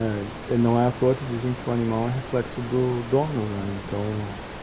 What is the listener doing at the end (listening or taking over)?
listening